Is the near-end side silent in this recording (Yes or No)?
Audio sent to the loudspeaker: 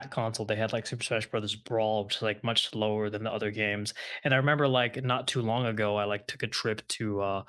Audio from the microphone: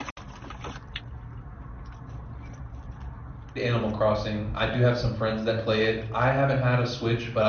No